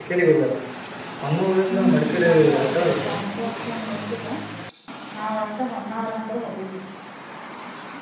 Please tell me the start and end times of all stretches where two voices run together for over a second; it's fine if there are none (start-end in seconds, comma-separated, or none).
2.0-3.2